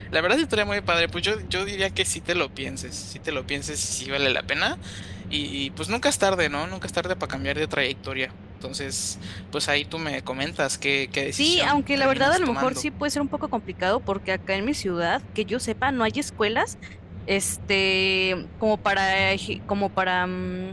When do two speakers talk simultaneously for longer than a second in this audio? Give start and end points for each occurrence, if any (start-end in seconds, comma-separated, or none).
11.4-12.8